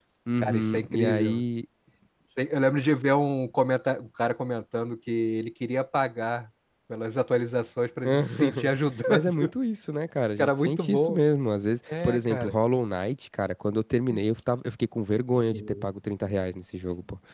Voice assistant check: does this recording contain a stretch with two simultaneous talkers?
Yes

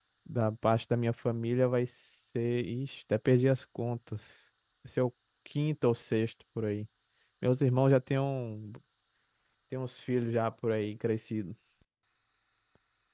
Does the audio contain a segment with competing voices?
No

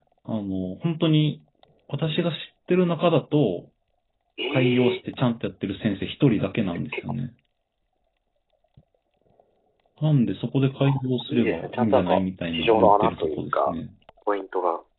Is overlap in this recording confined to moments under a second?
No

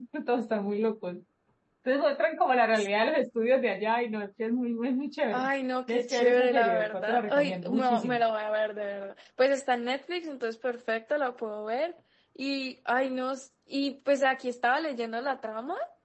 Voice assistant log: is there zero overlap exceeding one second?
No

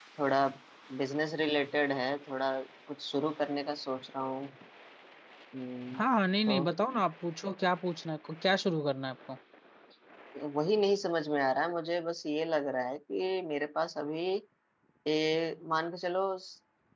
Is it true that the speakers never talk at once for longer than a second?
Yes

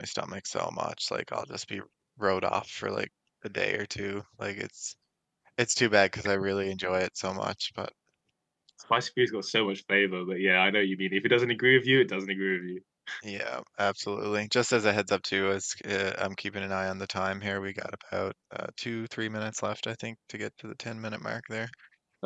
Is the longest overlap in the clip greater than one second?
No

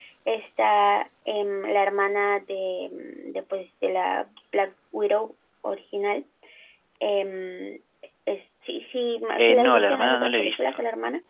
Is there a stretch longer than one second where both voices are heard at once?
Yes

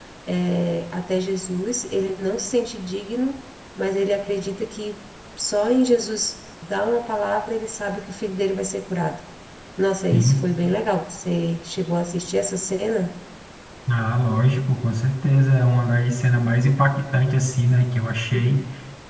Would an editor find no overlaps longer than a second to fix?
Yes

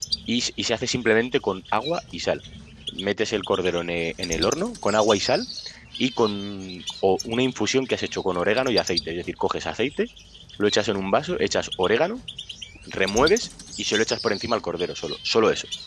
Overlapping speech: No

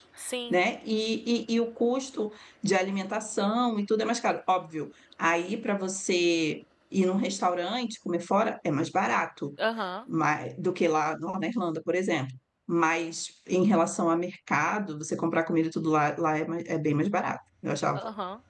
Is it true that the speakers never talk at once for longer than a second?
Yes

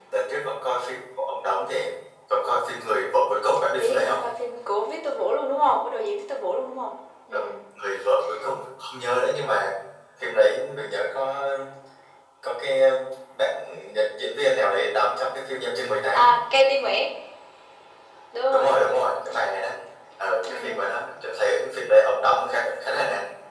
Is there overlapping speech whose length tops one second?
No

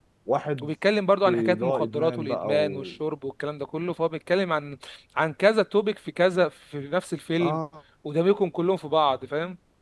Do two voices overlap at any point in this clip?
Yes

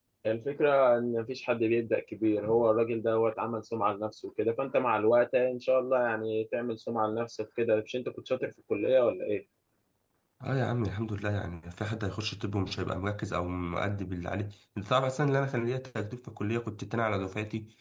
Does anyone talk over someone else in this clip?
No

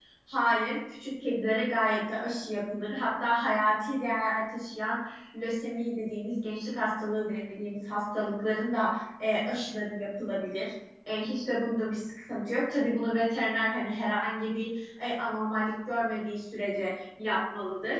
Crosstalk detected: No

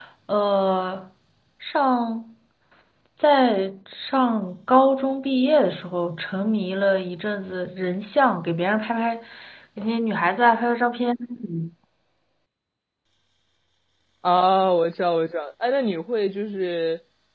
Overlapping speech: No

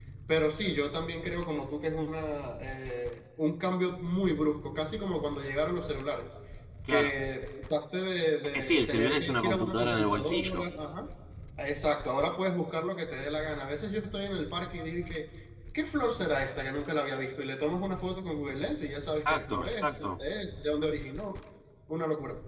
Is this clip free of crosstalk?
No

